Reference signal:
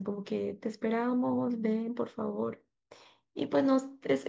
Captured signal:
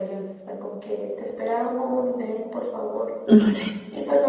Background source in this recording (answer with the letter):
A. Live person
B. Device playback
B